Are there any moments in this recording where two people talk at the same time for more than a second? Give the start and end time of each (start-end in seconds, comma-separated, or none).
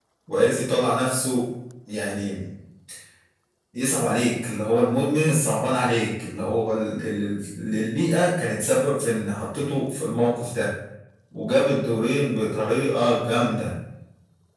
none